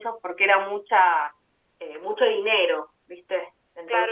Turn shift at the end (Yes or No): Yes